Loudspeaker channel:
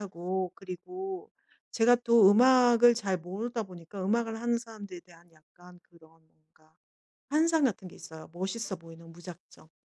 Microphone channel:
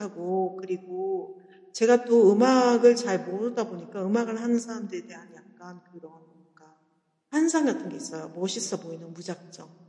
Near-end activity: none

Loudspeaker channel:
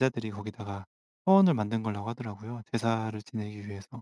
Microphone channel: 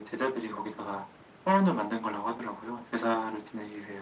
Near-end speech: none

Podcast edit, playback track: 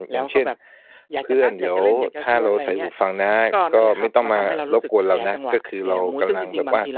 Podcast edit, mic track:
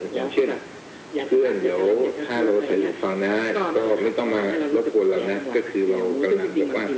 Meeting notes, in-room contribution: none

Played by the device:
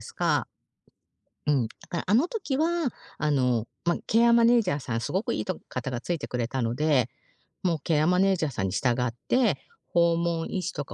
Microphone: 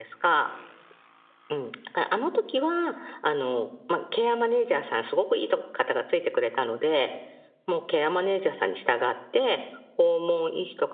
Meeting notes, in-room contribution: none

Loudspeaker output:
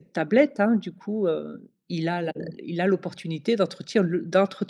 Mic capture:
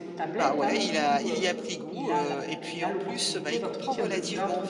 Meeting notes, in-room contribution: present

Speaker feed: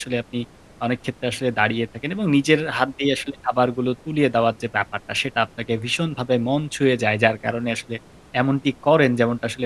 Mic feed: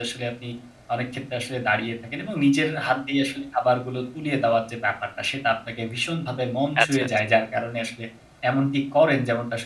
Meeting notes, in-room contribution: present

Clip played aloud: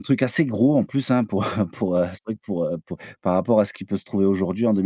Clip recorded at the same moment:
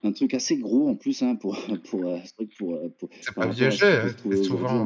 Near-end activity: present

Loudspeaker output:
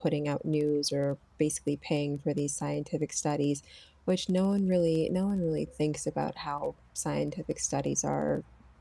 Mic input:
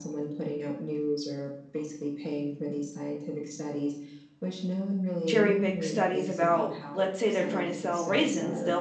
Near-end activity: present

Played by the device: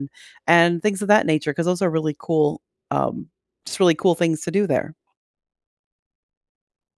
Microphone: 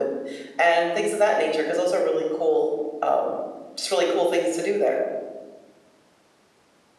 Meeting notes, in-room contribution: none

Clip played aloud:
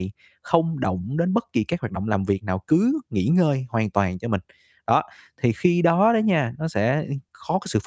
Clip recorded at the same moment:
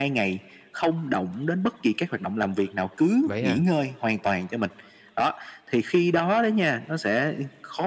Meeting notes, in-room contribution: present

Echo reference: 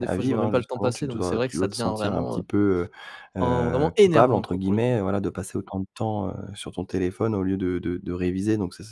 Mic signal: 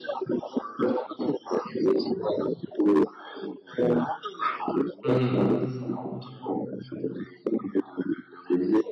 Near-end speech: present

